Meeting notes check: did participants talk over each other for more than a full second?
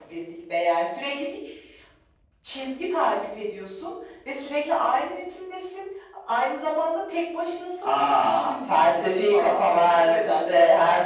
Yes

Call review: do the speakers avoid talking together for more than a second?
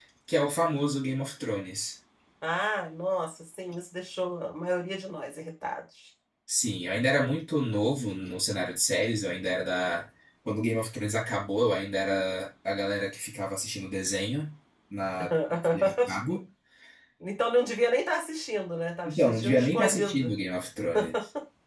No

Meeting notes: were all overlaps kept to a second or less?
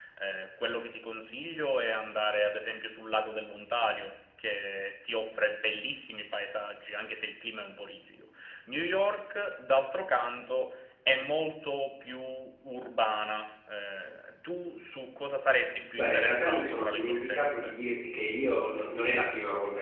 No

